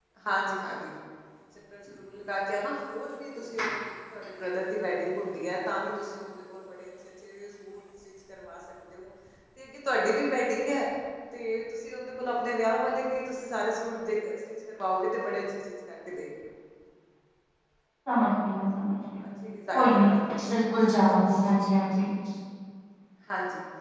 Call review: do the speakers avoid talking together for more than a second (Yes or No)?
Yes